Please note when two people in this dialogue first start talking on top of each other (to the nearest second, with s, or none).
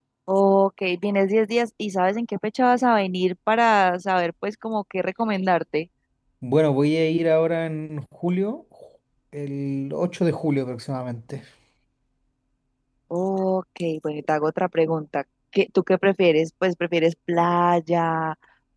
none